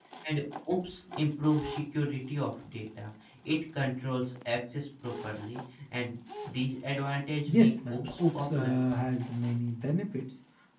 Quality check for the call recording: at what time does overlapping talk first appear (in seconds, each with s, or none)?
7.5 s